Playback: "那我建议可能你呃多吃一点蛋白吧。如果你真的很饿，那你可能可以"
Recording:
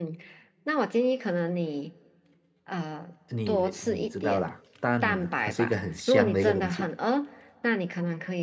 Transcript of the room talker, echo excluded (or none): 你你知道啦，蛋呢，它是一个很香的一个东西，